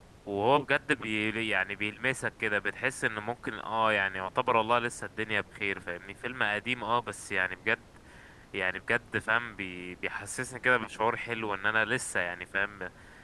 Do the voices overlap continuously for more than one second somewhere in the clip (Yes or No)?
No